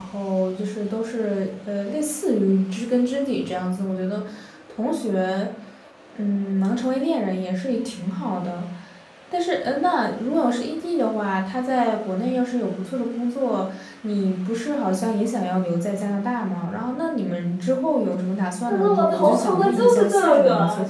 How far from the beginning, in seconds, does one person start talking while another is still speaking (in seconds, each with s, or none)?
18.7 s